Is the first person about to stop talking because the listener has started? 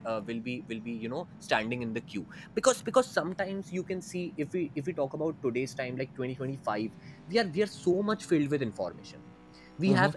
No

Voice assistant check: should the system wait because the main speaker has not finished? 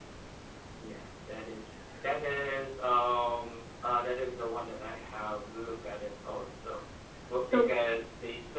Yes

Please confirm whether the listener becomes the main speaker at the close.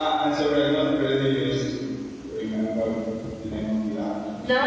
Yes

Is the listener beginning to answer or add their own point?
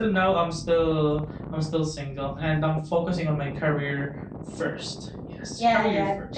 Yes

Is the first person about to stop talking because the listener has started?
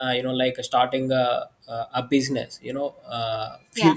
No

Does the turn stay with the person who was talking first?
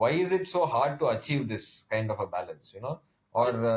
Yes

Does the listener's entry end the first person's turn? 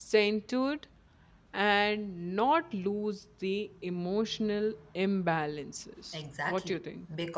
Yes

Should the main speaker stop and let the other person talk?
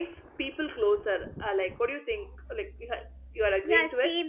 Yes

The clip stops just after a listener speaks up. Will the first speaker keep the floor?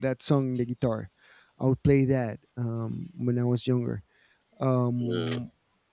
Yes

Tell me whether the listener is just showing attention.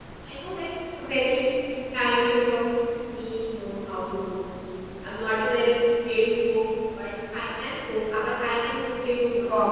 No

